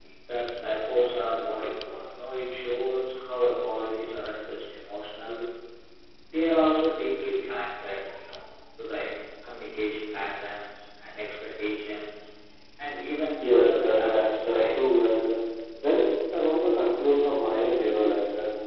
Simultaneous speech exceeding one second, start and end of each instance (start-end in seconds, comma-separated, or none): 13.4-15.0